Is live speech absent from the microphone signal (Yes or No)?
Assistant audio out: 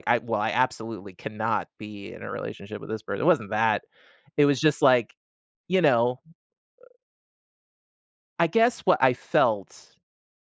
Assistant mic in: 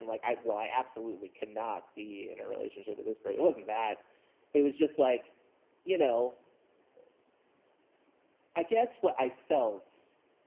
Yes